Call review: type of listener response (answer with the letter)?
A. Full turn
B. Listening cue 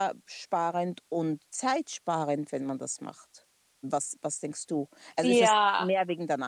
B